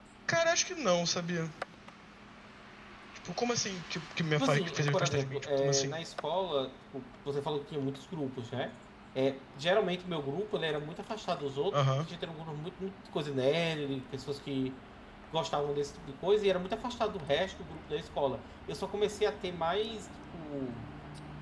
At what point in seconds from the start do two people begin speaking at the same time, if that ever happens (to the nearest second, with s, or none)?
4 s